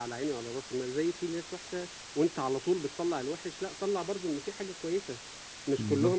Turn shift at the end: No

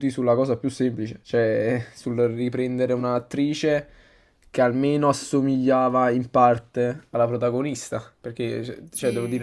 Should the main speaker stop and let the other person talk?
No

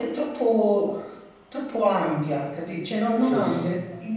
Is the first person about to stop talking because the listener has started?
No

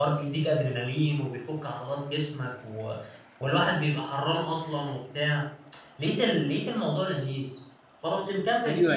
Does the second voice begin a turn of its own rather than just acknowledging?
Yes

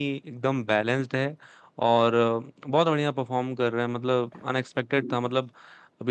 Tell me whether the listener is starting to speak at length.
No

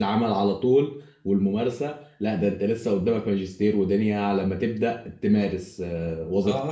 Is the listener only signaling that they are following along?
No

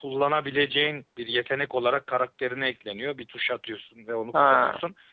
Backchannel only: Yes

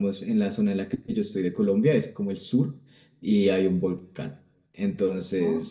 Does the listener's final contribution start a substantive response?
No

